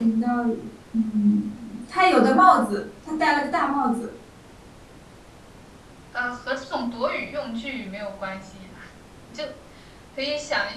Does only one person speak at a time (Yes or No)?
Yes